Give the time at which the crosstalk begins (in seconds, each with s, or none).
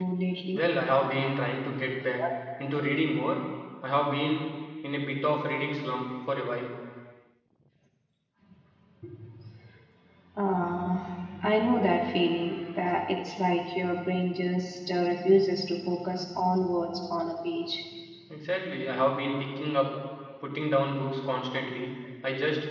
none